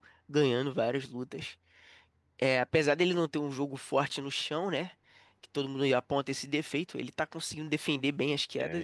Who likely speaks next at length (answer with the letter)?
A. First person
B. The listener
B